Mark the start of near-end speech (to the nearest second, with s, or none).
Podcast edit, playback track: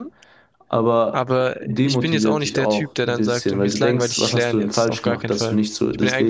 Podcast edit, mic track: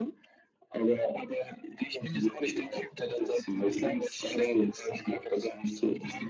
none